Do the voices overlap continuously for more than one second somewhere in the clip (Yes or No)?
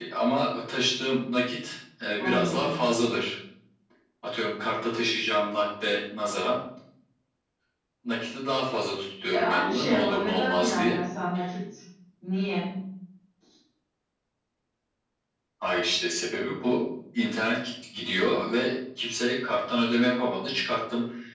Yes